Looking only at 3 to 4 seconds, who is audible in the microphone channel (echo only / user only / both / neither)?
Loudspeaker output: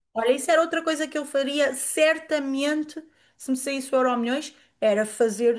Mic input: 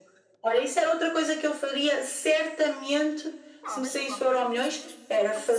both